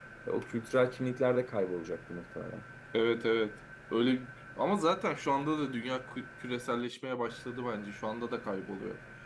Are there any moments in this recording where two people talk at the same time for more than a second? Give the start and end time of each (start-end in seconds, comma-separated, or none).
none